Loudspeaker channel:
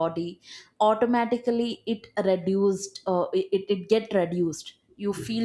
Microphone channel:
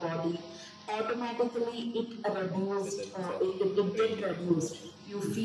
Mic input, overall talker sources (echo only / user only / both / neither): both